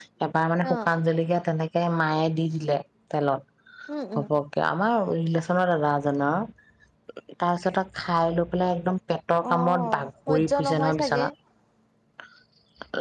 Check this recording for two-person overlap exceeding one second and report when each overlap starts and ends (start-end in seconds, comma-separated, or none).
9.5-11.3